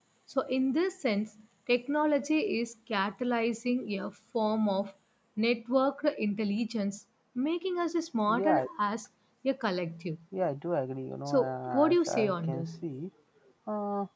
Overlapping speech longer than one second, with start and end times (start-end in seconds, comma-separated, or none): 11.3-12.8